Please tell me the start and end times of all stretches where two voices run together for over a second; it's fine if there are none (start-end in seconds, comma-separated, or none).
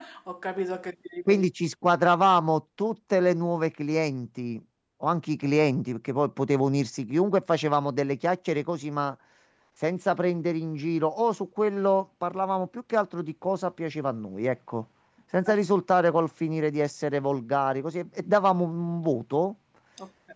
none